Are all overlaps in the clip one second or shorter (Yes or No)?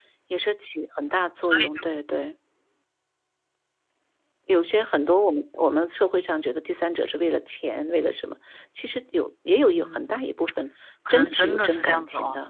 No